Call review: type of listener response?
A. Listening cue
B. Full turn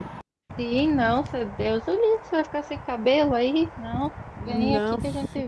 B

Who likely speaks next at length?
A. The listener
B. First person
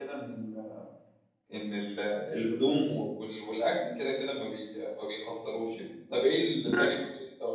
B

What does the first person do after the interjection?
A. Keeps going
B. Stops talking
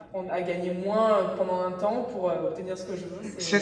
B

